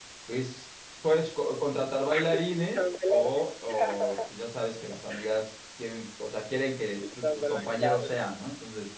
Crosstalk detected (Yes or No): Yes